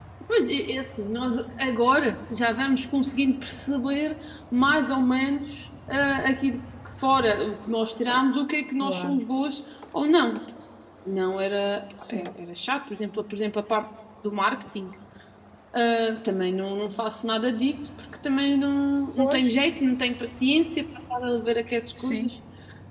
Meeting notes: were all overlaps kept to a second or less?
Yes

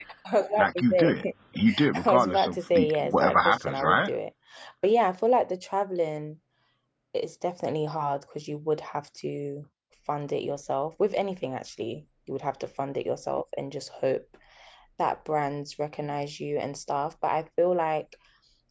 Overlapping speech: Yes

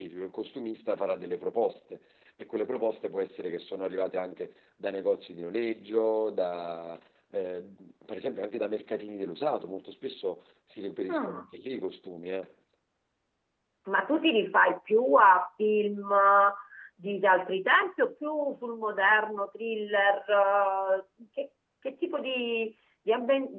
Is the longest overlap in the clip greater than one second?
No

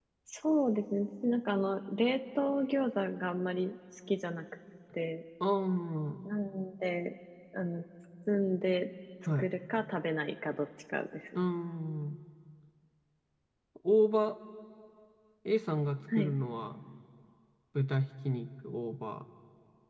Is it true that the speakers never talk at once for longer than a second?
Yes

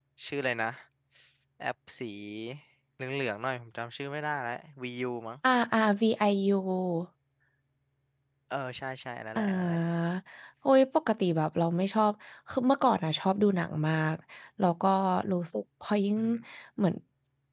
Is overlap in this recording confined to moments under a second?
Yes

